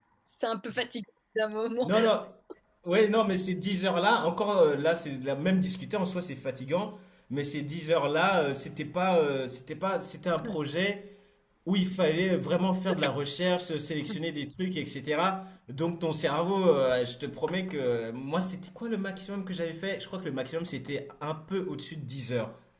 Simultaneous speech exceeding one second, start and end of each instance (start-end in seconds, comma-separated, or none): none